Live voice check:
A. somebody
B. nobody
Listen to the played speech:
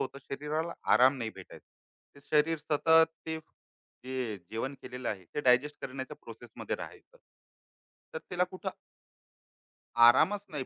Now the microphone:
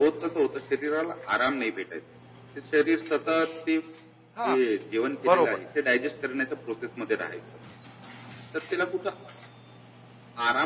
A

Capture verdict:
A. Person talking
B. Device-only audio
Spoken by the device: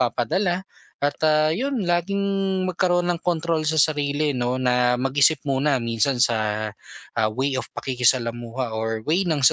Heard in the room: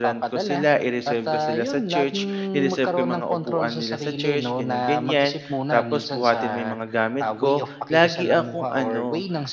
A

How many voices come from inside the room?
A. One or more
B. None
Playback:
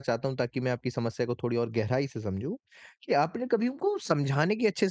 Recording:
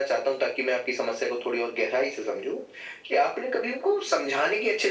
B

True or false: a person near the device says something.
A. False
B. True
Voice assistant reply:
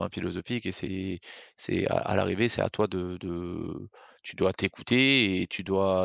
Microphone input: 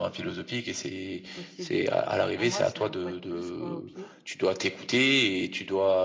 B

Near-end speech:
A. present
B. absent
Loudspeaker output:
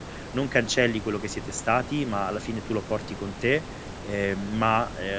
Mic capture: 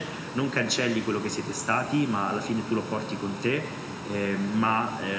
B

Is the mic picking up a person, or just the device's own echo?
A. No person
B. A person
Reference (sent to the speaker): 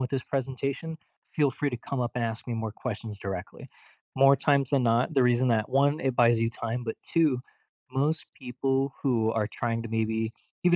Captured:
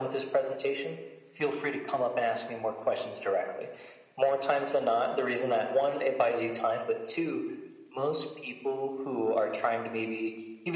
A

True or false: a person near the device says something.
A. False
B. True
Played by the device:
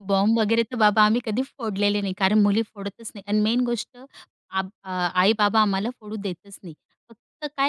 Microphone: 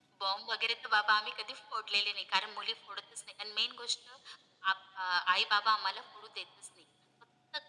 A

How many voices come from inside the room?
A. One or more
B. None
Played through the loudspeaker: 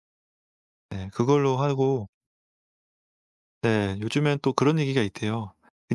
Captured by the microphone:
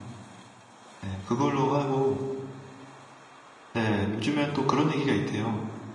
B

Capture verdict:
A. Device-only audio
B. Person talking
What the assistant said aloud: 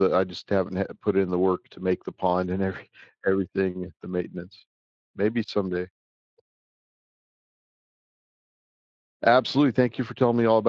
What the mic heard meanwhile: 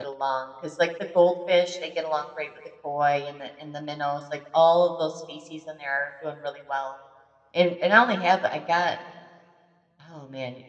B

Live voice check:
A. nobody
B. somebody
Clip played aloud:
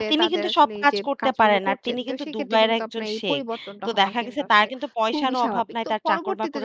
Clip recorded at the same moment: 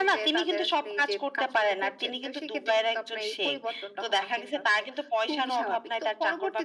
A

